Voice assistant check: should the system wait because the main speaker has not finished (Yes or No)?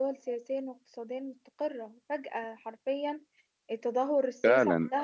No